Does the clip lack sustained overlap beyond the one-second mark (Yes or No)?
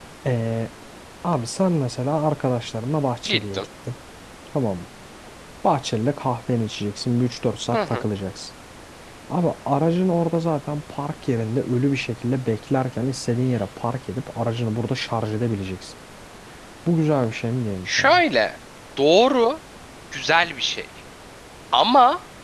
Yes